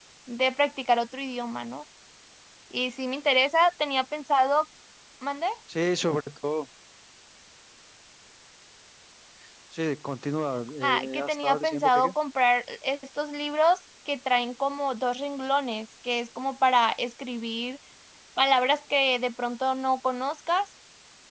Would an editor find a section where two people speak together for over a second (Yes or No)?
Yes